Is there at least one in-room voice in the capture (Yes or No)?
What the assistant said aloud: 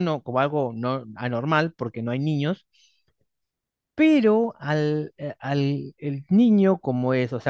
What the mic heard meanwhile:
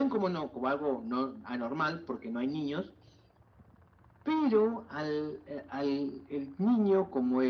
No